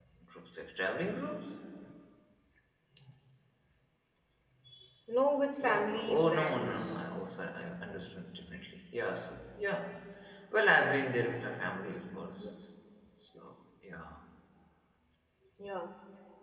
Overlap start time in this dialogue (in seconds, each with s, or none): 5.6 s